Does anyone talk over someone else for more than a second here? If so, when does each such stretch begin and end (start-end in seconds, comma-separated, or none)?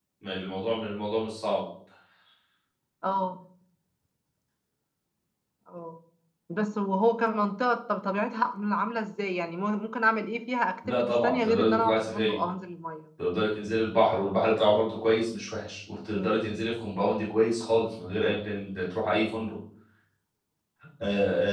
10.9-12.3